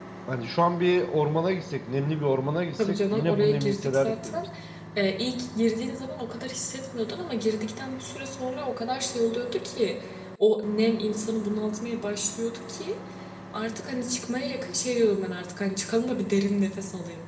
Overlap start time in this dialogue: 2.8 s

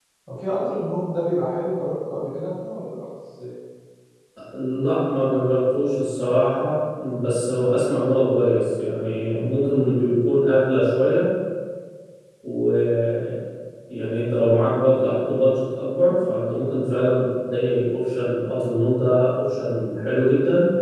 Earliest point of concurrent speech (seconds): none

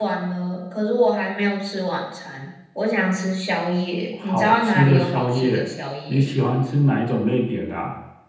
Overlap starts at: 4.1 s

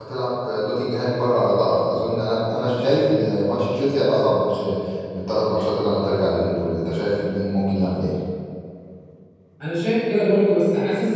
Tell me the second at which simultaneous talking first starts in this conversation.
none

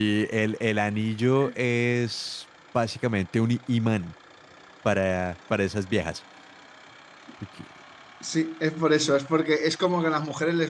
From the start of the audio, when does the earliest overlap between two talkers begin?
none

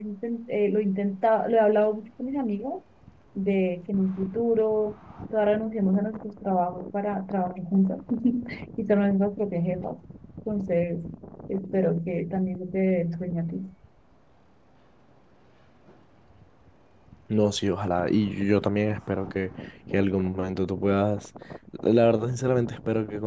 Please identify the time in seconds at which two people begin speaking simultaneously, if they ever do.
none

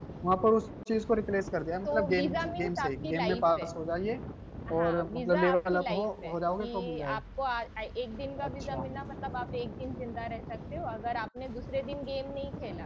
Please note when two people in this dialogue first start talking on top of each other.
1.8 s

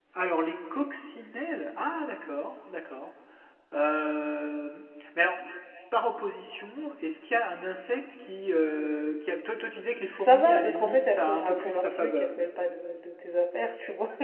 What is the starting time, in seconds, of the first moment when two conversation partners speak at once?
10.2 s

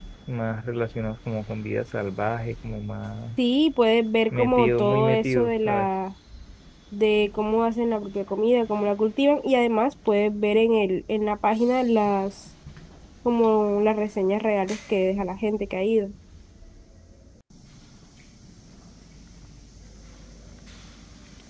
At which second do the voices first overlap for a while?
4.3 s

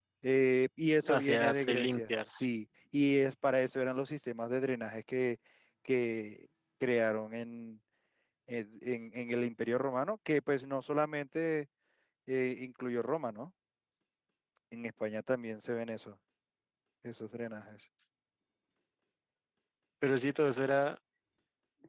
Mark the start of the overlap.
1.1 s

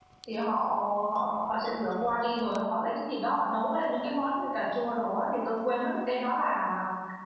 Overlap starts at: none

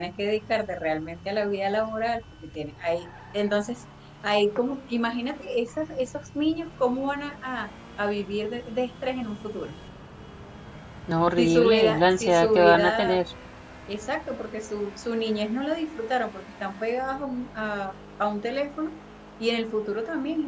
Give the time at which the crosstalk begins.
11.4 s

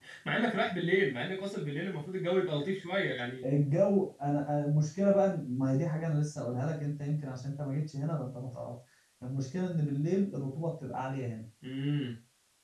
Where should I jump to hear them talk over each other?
none

